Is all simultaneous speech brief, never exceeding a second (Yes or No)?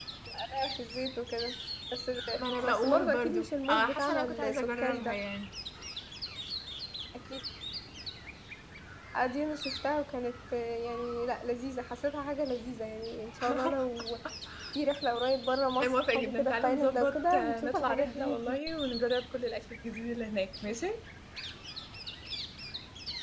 No